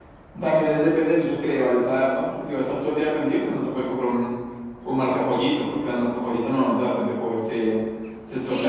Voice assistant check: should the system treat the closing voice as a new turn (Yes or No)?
Yes